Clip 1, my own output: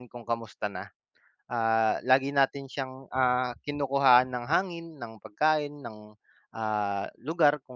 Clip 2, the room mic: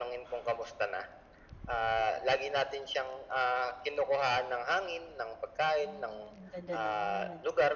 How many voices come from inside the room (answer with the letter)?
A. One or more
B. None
A